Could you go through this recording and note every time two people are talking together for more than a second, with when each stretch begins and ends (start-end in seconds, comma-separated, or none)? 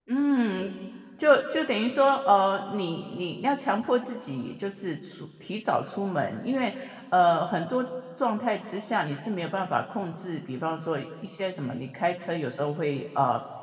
none